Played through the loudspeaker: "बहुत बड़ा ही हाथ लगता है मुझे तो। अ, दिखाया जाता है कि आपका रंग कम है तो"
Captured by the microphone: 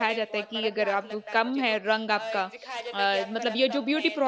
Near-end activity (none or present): present